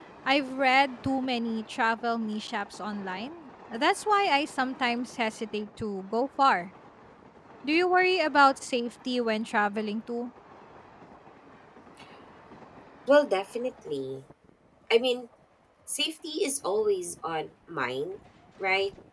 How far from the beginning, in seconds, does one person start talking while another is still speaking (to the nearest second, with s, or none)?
none